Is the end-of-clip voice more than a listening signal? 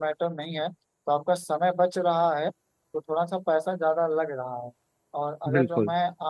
No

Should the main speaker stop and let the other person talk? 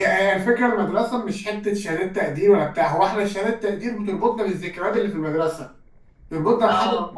No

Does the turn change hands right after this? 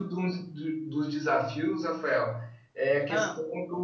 No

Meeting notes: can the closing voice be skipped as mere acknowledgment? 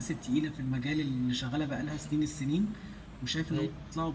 Yes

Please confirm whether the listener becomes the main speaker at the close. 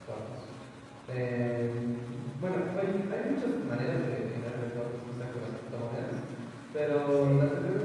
No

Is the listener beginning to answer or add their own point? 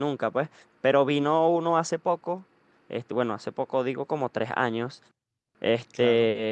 No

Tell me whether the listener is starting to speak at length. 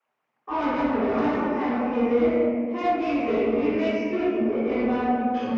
Yes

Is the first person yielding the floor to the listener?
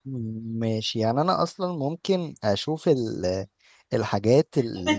Yes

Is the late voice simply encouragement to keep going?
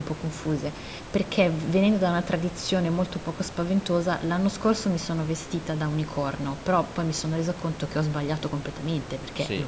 No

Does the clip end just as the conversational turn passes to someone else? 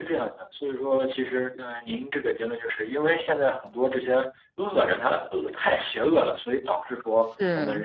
No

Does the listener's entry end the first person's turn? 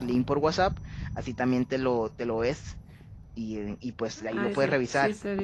Yes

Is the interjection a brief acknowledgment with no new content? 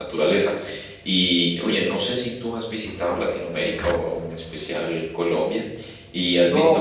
Yes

